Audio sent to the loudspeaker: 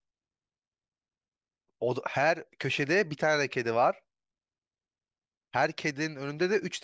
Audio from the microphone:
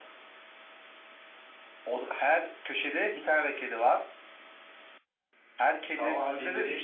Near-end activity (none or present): present